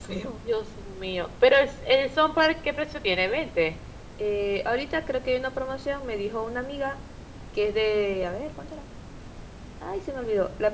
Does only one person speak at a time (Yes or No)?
Yes